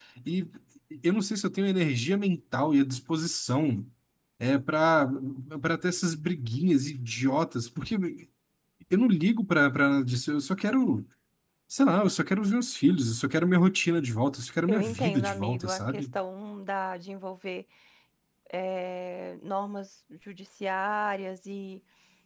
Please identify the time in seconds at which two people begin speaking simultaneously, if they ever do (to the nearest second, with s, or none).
15 s